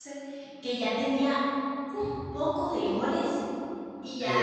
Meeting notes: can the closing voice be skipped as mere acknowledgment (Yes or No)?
Yes